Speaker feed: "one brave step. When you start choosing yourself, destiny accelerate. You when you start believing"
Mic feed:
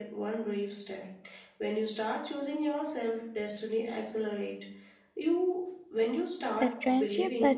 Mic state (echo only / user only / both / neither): both